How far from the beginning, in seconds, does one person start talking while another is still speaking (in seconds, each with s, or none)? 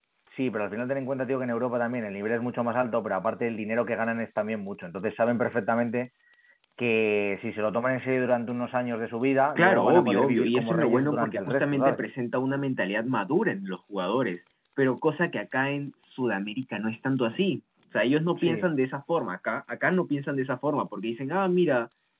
9.6 s